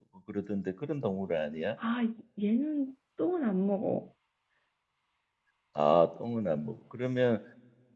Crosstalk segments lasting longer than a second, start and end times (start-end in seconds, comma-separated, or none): none